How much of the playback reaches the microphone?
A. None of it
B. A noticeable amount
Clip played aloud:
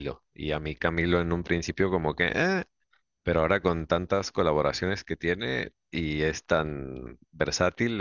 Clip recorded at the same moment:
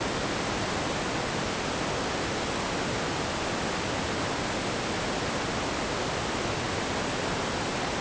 A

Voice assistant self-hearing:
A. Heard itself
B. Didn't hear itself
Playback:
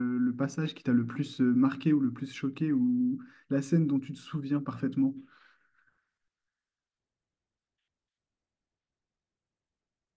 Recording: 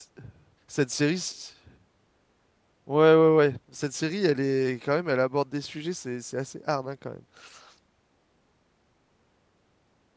B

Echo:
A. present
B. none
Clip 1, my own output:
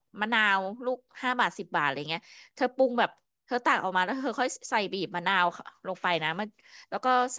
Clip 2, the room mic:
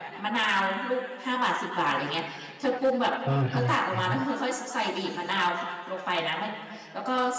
A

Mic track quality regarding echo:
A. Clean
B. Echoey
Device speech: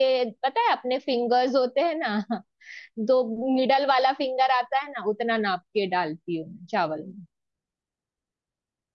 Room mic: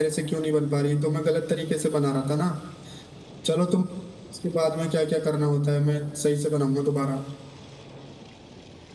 A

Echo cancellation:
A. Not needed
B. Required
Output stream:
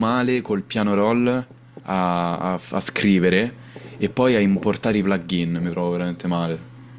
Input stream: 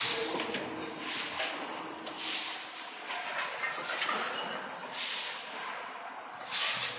A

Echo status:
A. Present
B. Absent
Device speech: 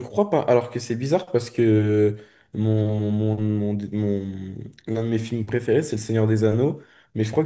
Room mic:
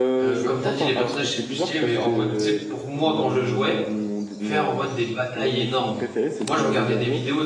A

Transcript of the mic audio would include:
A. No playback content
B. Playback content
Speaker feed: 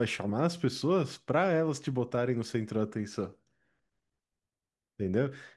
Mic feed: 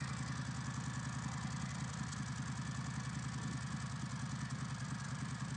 A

